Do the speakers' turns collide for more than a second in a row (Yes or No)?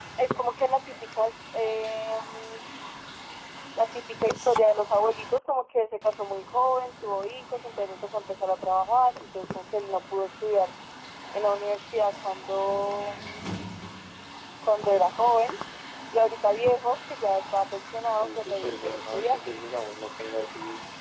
Yes